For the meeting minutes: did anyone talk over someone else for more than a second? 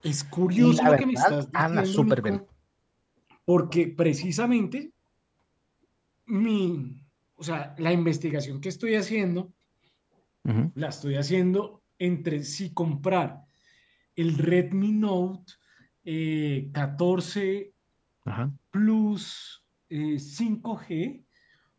Yes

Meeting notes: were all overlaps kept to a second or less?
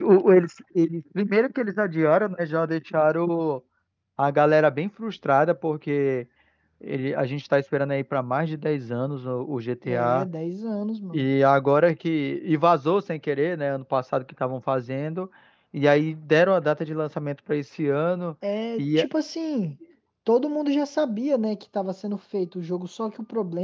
Yes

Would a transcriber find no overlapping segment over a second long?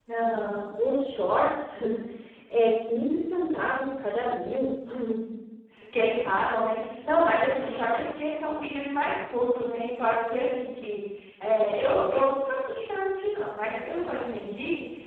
Yes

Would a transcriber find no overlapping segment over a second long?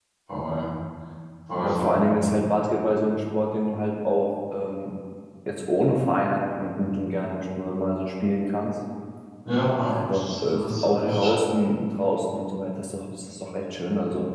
No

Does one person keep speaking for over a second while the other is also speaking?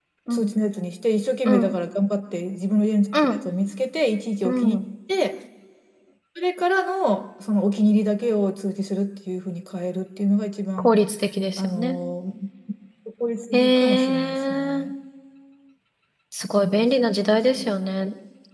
Yes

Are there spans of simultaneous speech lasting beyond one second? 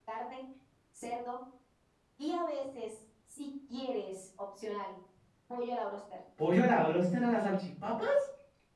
No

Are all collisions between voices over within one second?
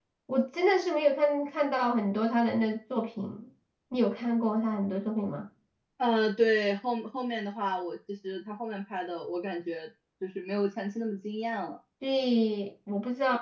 Yes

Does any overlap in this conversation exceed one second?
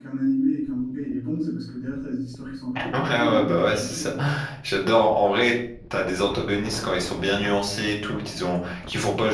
Yes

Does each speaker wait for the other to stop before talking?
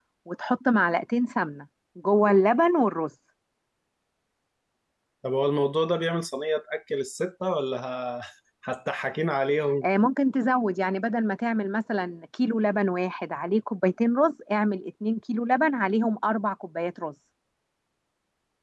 Yes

